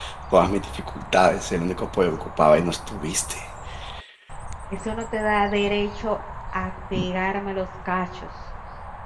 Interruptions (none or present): none